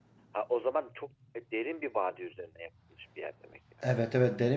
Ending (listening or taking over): taking over